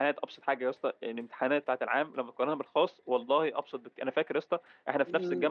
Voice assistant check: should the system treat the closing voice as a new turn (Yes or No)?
No